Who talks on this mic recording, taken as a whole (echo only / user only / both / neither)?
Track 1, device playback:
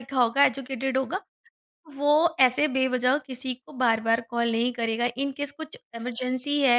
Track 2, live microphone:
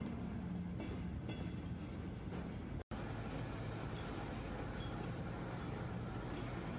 neither